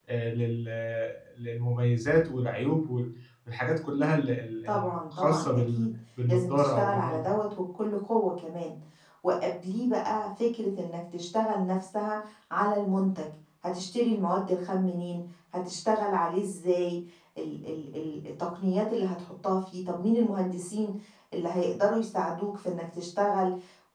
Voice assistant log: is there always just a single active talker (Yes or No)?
No